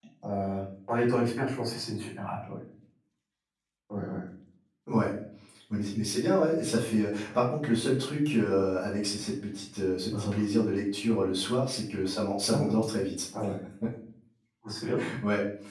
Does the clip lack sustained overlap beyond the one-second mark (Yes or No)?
Yes